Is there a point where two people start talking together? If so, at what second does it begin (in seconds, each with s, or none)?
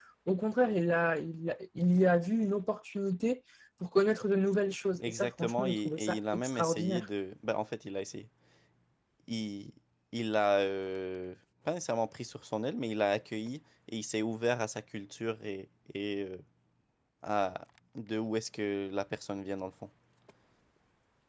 5.0 s